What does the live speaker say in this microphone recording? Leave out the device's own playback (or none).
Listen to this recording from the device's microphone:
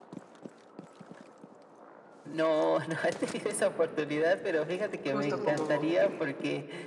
justo como que